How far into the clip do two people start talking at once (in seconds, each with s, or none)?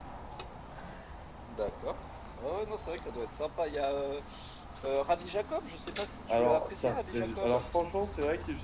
6.3 s